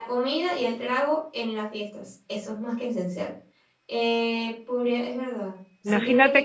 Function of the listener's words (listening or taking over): taking over